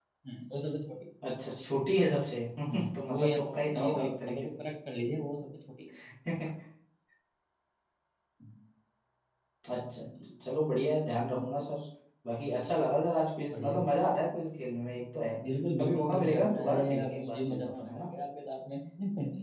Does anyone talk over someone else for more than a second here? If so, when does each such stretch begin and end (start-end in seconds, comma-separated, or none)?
2.7-4.6, 15.8-18.1